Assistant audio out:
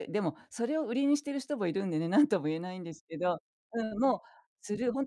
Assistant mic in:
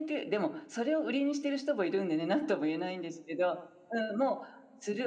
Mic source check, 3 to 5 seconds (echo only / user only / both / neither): echo only